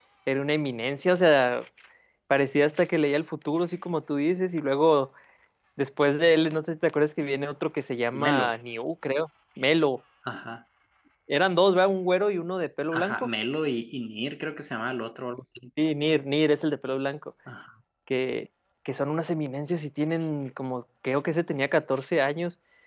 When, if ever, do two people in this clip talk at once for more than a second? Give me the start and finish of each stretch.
none

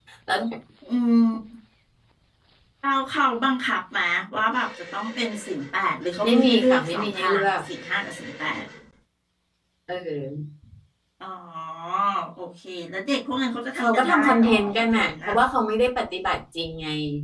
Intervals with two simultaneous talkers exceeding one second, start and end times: 6.2-7.5, 13.7-15.3

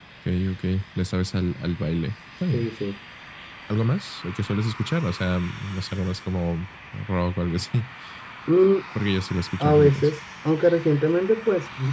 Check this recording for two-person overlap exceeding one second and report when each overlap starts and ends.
none

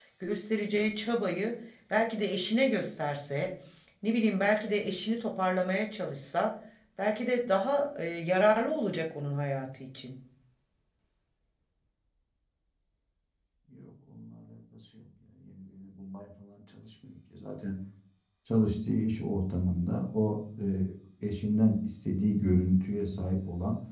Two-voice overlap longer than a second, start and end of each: none

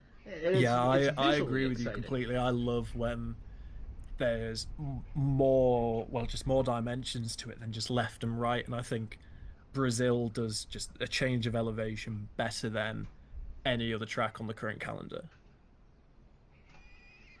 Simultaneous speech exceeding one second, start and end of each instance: 0.5-2.1

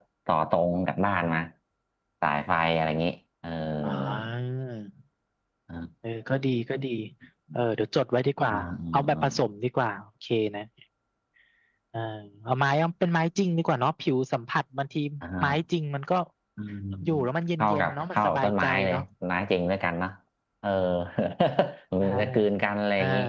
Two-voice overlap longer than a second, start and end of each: 17.6-19.0

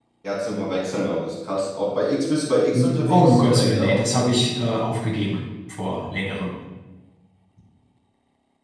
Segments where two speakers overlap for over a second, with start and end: 2.7-4.0

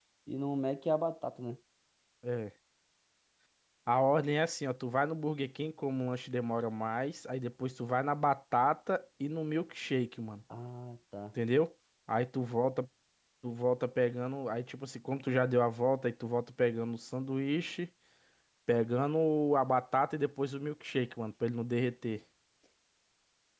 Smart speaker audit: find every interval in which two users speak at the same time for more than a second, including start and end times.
none

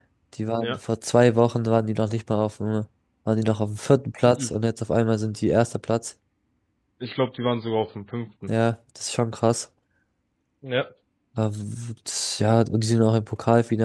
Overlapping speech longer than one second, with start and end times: none

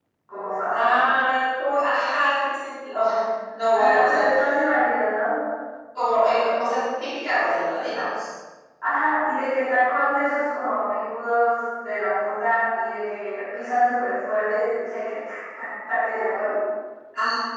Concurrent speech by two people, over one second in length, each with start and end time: none

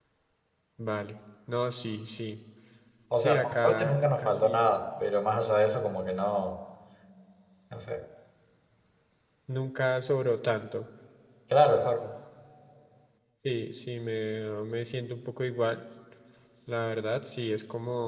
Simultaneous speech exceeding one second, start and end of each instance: 3.2-4.6

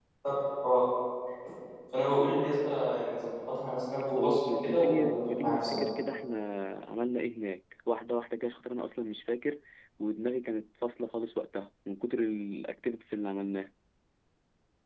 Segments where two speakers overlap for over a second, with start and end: 4.2-5.8

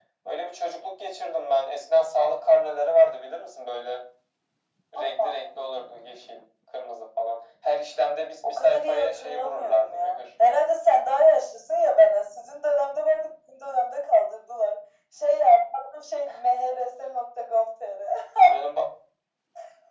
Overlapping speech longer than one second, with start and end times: 8.4-10.3

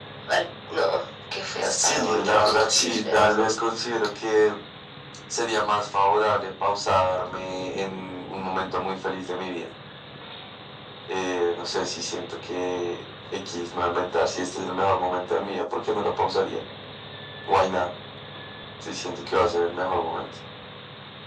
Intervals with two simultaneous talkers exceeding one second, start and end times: 1.6-3.5

